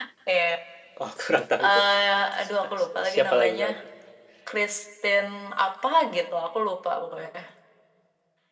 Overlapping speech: Yes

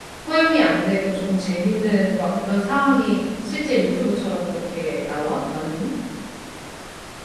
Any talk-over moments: No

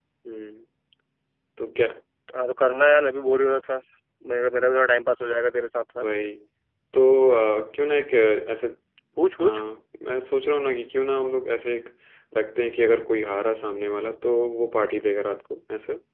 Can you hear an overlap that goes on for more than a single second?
No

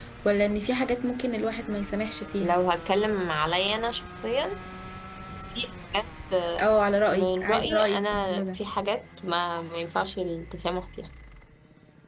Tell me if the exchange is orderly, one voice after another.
No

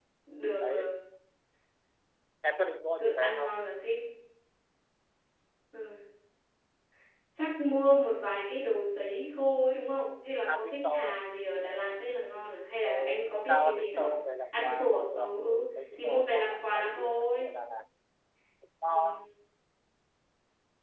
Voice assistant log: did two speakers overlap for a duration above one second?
Yes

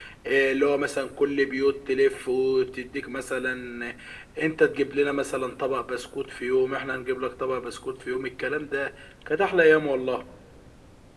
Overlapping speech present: No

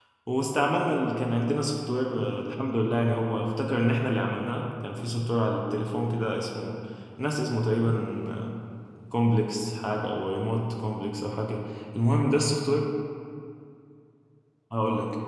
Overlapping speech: No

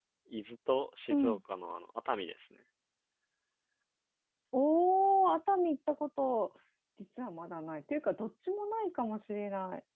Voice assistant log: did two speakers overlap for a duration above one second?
No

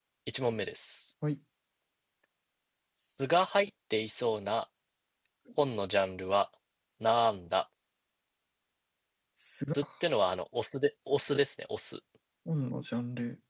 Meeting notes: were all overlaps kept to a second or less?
Yes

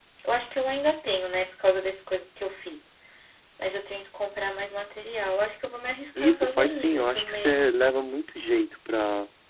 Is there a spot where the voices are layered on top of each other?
Yes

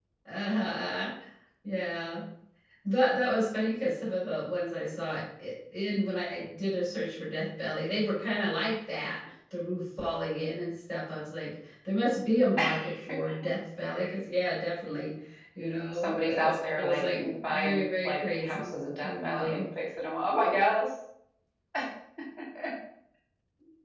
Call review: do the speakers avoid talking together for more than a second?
No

